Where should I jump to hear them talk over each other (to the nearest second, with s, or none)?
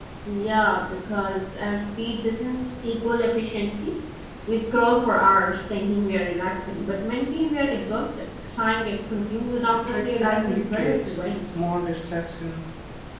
10 s